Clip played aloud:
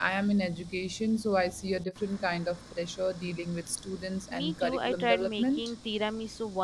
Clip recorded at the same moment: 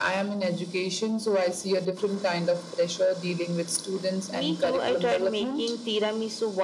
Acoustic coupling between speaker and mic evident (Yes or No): Yes